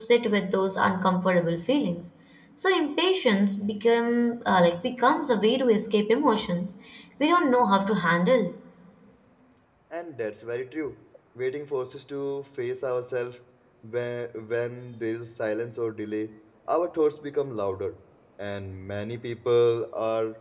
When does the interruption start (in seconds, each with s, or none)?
none